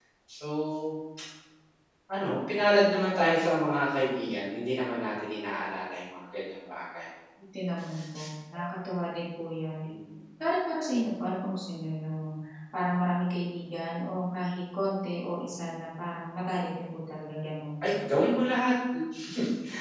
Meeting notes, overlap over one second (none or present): none